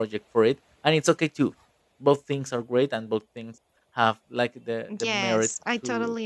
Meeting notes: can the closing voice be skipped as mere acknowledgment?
No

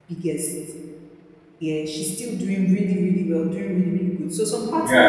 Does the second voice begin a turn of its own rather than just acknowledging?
No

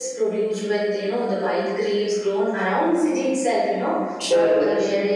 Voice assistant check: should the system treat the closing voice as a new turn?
No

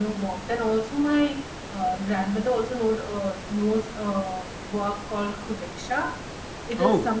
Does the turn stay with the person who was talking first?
Yes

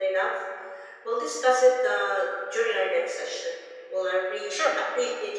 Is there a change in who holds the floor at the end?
No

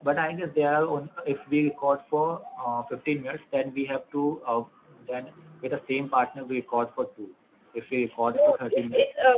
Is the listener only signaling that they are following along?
No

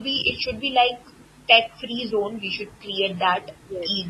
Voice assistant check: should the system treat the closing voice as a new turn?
No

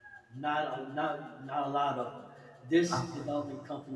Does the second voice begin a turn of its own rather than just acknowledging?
No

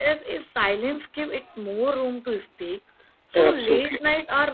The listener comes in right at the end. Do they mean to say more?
No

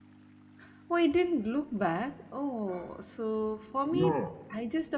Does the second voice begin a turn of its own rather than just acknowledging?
No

